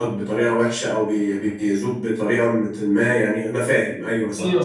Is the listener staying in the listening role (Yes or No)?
No